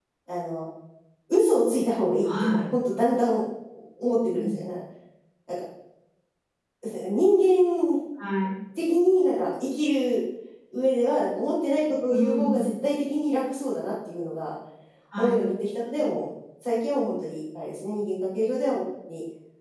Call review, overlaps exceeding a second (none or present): none